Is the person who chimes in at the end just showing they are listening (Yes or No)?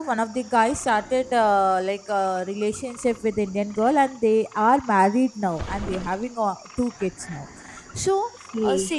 Yes